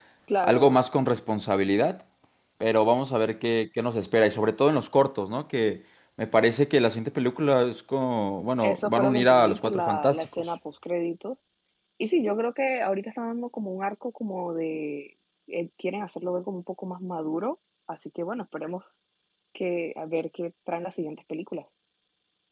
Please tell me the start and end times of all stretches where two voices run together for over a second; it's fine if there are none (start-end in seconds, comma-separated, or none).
8.6-10.4